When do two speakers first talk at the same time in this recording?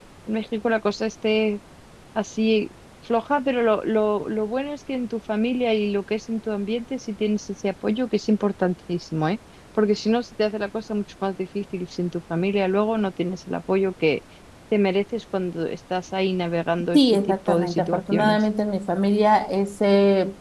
16.9 s

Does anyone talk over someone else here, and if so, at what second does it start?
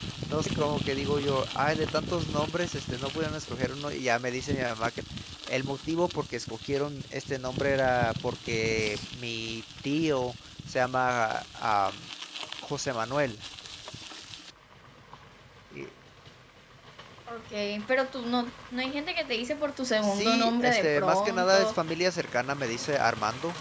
20.0 s

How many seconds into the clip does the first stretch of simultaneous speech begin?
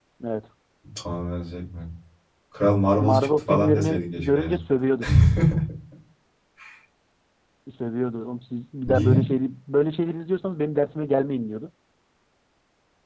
3.0 s

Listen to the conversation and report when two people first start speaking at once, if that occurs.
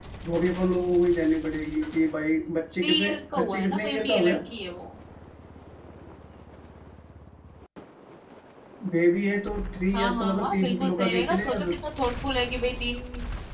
2.8 s

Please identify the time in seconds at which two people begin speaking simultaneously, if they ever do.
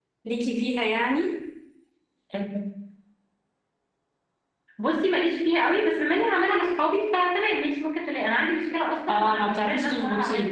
9.1 s

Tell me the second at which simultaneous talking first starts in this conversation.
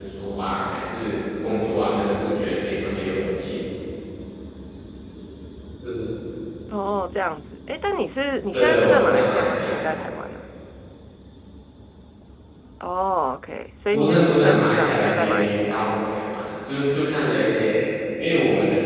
8.5 s

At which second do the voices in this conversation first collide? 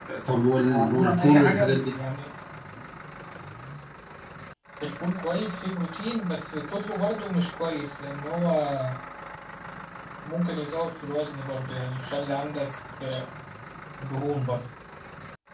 0.6 s

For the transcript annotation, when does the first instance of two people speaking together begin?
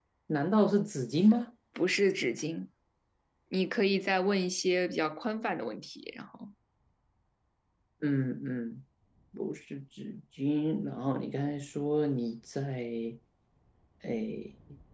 none

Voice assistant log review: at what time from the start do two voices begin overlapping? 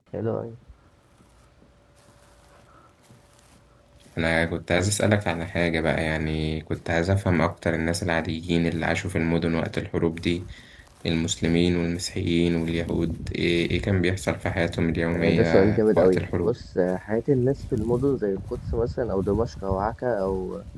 15.1 s

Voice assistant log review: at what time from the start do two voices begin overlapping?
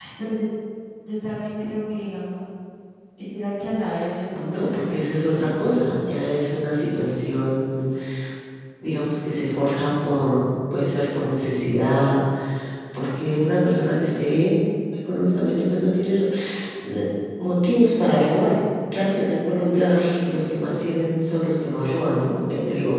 4.4 s

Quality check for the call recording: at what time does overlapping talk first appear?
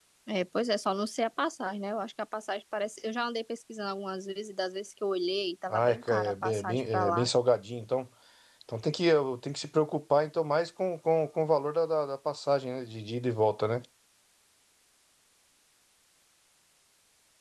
5.7 s

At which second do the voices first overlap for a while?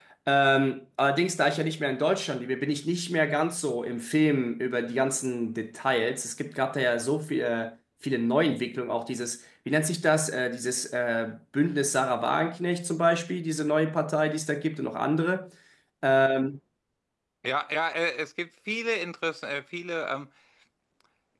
none

